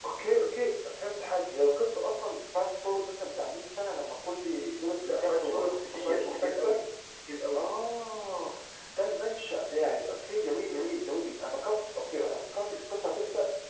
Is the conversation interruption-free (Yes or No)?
No